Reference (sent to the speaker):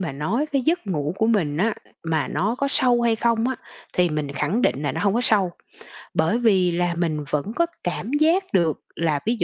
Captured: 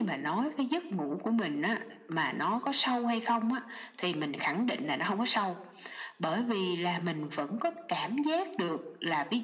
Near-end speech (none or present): none